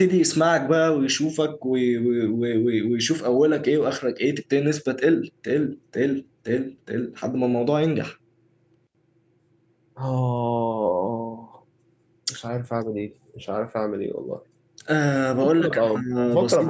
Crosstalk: present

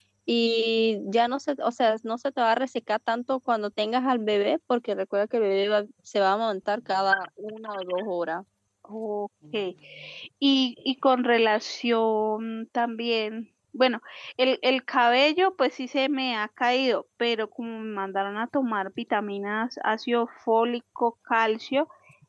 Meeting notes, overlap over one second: none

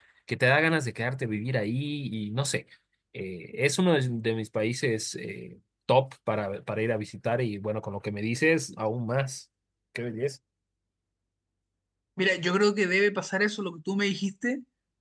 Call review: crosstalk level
none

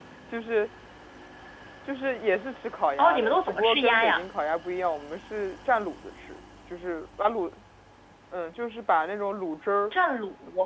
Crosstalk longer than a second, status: present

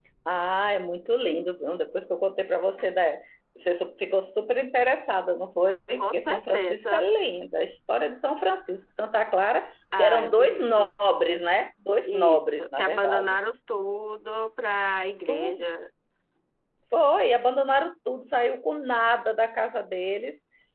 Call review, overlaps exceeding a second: present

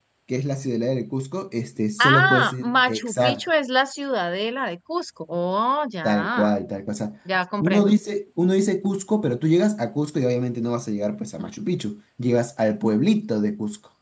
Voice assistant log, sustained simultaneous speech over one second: present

